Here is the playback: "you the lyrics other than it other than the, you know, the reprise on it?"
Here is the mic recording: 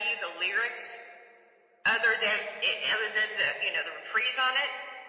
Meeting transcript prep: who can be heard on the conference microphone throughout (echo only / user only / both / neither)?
echo only